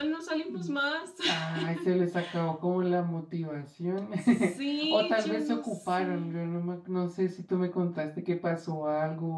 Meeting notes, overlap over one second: present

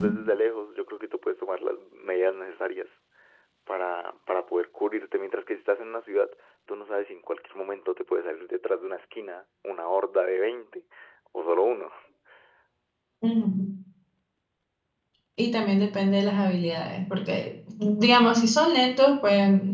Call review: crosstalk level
none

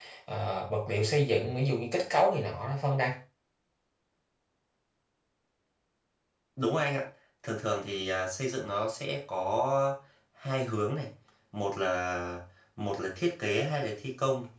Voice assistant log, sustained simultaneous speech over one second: none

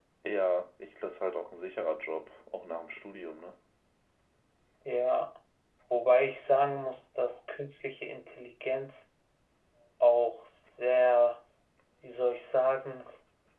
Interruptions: none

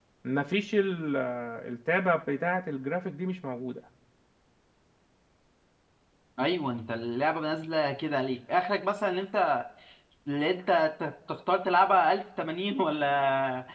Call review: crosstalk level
none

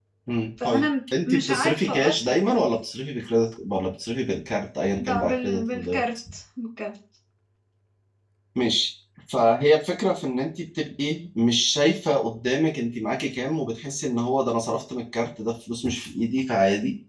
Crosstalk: present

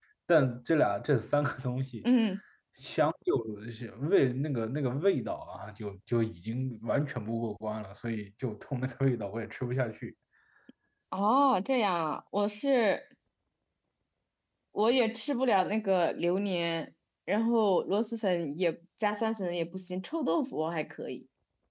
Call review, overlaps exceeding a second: none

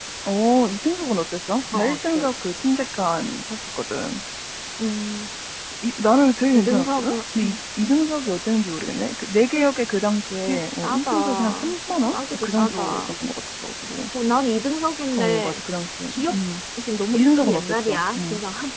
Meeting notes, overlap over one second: present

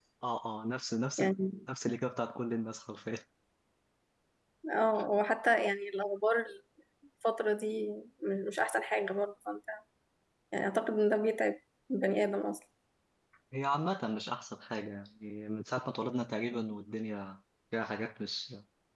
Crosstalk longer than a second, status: none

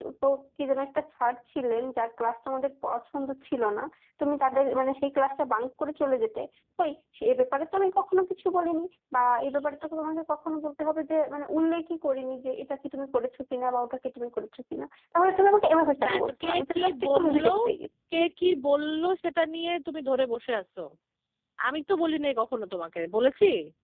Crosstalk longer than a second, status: present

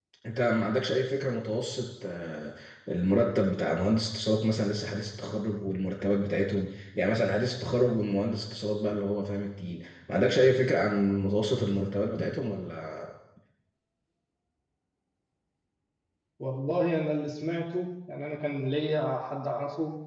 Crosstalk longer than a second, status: none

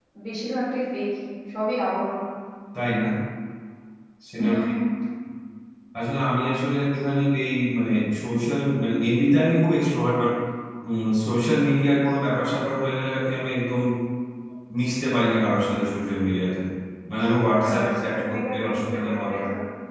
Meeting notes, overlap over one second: present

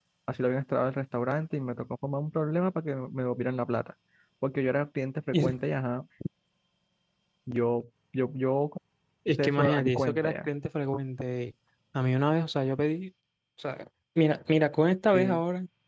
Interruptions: present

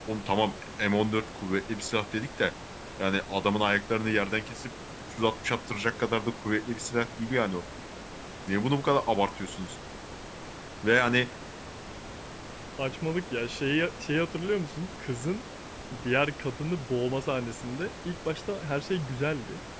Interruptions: none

